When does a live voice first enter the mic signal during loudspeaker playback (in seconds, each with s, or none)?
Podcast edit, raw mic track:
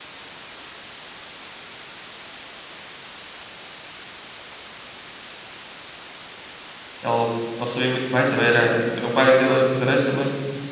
7.0 s